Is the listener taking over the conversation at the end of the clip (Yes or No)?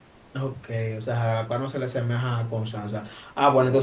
No